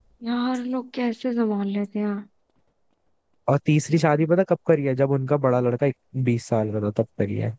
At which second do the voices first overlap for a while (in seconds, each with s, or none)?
none